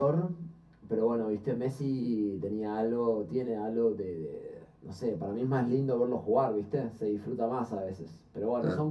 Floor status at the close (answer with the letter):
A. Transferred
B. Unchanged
A